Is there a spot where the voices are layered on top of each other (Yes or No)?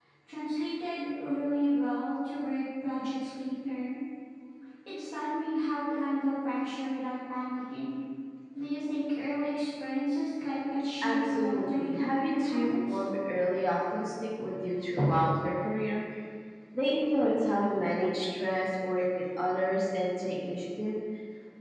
Yes